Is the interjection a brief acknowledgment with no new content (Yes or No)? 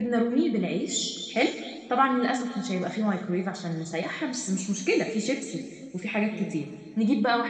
Yes